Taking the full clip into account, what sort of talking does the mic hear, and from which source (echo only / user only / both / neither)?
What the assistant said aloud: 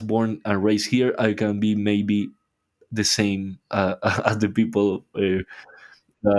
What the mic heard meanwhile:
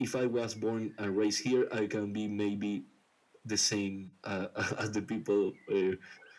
echo only